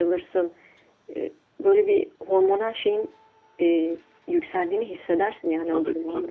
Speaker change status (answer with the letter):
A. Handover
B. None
A